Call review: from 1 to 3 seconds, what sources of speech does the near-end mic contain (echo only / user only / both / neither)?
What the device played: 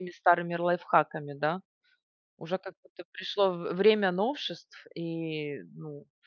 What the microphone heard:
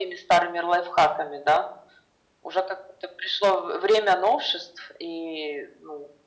echo only